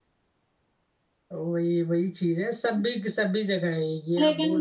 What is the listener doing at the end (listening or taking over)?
taking over